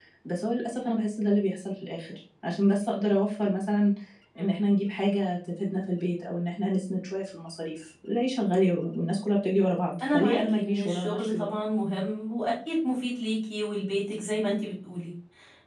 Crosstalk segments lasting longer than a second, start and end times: 10.1-11.5

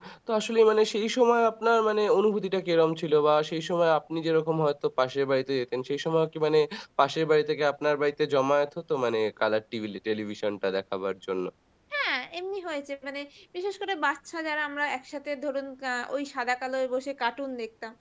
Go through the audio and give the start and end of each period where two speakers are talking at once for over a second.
none

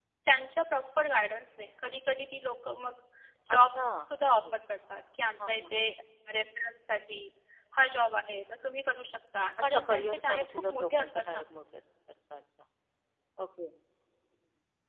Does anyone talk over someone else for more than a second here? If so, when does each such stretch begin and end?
9.7-11.4

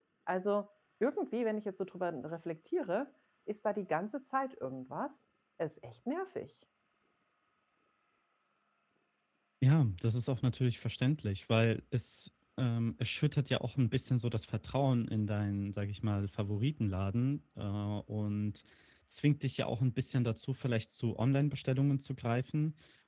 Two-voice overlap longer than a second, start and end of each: none

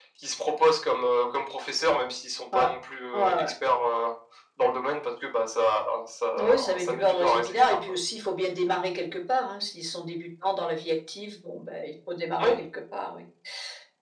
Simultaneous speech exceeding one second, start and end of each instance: 6.4-7.8

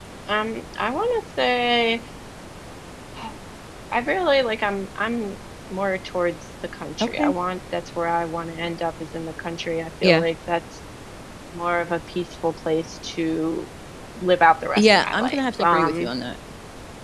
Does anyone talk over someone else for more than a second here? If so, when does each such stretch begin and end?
14.8-16.1

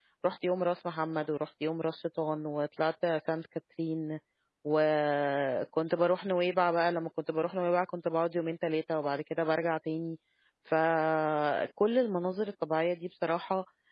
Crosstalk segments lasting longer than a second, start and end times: none

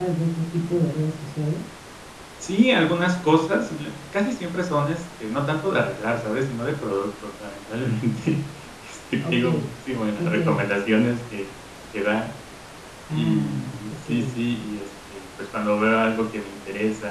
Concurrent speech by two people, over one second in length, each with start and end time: 13.1-14.3

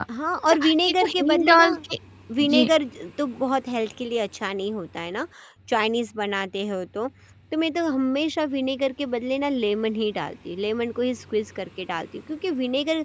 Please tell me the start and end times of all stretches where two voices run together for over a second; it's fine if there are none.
0.5-1.7

